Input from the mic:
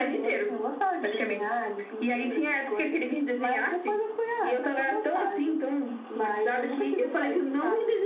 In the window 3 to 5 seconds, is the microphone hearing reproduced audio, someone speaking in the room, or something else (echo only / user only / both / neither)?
echo only